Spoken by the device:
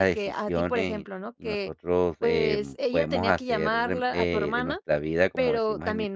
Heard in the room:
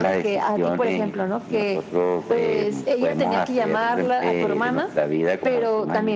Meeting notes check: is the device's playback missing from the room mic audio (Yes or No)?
No